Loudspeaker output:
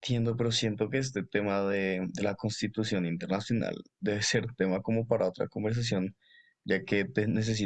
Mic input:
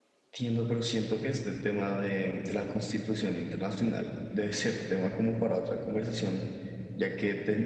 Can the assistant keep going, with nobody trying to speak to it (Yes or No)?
Yes